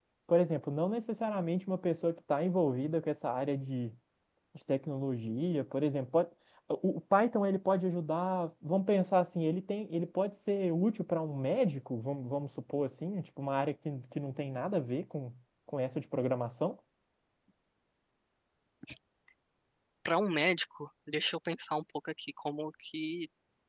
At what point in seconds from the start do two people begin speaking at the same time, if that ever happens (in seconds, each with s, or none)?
none